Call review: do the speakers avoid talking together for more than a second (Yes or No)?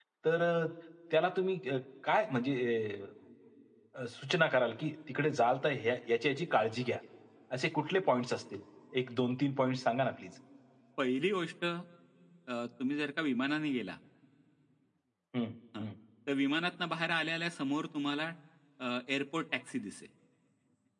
Yes